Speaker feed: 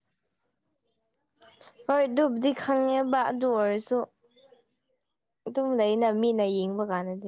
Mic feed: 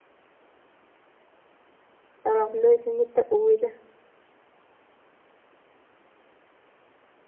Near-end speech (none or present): present